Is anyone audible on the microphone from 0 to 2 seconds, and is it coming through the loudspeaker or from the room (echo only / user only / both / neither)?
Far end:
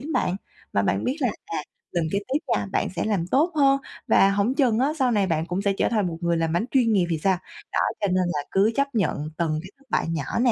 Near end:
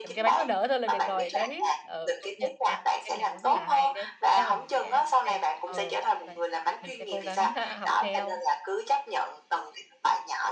both